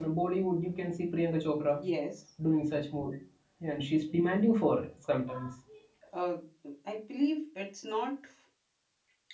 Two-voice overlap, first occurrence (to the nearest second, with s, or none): none